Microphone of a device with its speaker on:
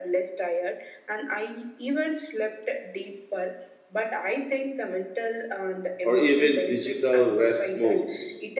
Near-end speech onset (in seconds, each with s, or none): 6.0 s